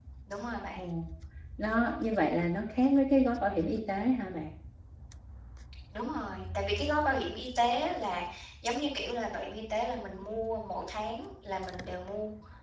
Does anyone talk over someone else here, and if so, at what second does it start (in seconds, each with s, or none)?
none